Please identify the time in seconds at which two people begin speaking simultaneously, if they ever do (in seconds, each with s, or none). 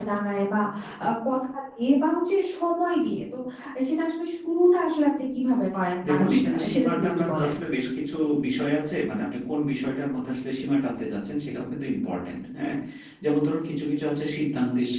6.0 s